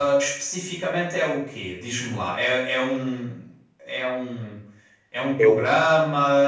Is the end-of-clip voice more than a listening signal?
No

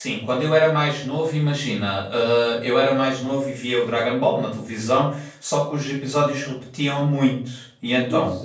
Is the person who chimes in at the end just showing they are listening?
No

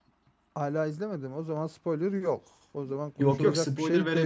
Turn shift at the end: Yes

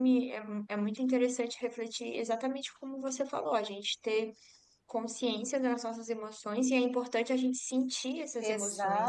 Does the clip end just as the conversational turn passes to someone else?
Yes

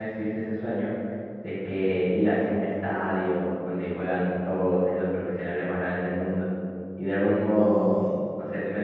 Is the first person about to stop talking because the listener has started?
No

